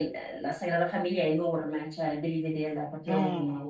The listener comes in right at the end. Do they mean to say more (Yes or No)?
No